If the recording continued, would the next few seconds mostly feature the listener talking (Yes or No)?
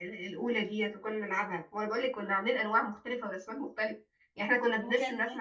No